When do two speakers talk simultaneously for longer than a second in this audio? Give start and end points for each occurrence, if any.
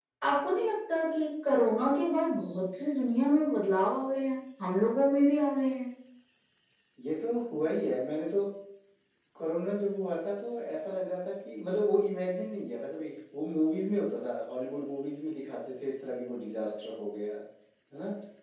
none

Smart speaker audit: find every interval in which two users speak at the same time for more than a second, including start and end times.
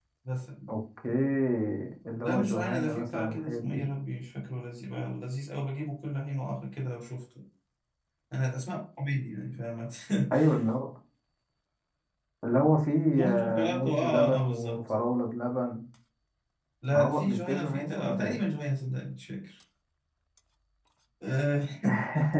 2.2-3.9, 13.1-14.9, 16.9-18.4

